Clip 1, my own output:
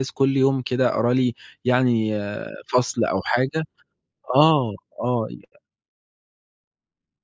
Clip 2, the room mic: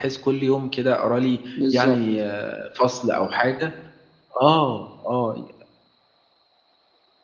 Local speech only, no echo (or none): بالضبط